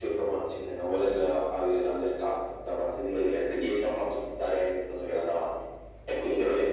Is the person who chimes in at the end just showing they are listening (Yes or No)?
Yes